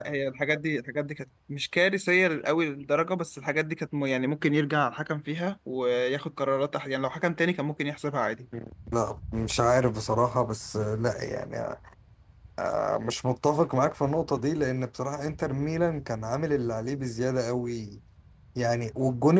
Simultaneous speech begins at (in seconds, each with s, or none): none